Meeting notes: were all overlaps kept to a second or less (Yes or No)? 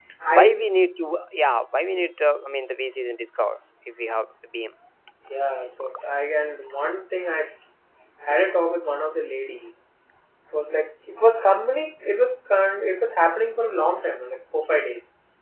Yes